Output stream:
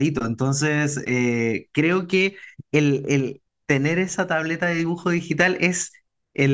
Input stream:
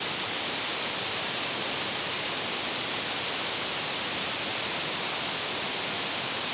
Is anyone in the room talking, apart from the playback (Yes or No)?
No